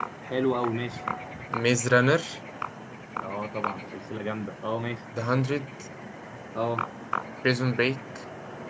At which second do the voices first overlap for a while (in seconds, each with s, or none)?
none